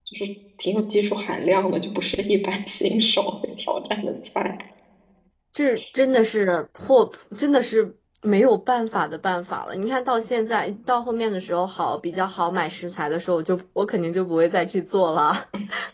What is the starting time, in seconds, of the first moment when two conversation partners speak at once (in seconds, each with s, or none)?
none